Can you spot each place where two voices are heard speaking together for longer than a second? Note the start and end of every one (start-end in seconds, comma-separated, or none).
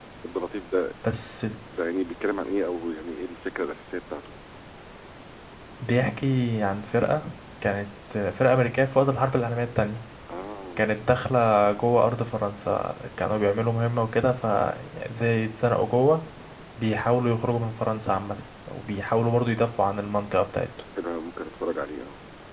none